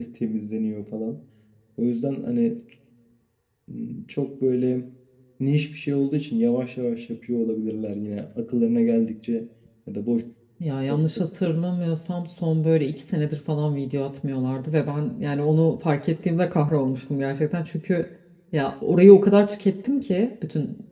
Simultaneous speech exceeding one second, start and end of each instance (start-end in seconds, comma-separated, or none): none